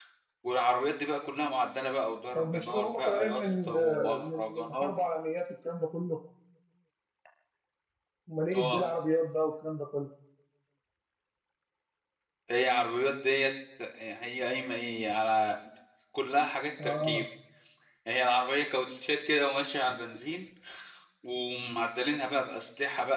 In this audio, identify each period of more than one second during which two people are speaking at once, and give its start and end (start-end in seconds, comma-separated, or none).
2.4-4.9